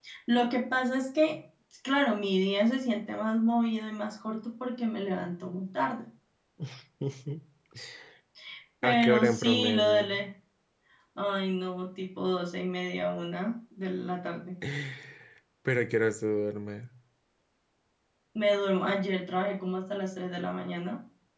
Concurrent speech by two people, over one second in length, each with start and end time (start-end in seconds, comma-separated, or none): 8.8-10.2